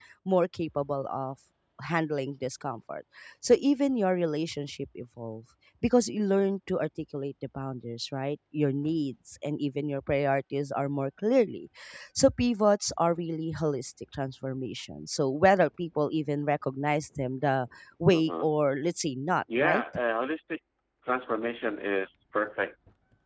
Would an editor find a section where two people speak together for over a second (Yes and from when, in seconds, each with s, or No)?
No